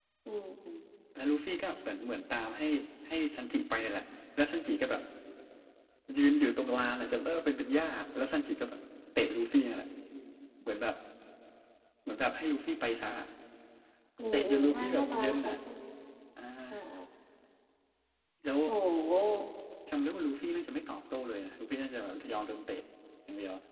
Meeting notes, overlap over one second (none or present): present